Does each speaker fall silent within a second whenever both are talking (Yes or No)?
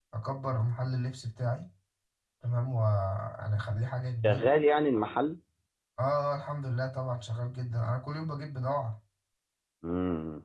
Yes